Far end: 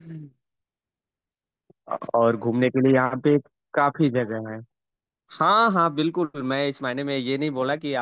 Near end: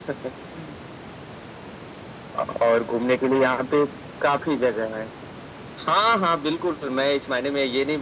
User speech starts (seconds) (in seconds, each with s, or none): none